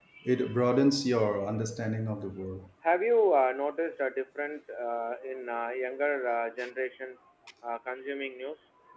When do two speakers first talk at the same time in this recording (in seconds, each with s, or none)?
none